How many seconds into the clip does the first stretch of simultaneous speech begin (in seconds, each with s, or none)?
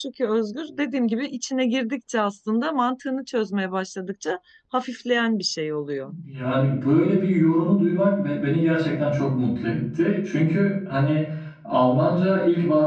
none